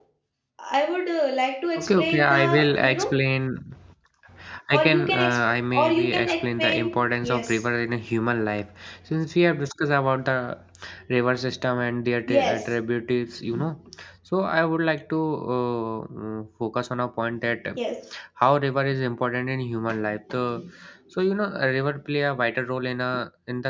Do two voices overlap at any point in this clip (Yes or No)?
Yes